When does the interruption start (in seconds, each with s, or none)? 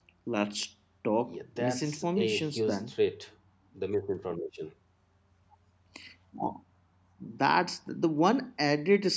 1.3 s